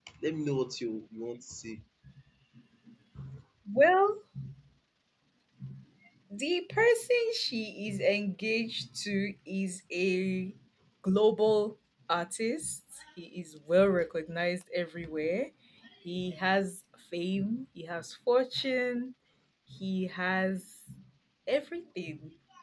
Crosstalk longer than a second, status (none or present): none